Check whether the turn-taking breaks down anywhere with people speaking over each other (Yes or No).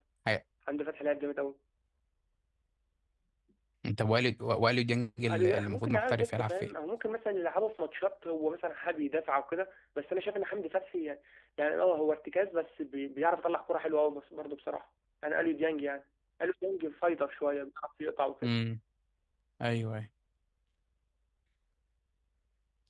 Yes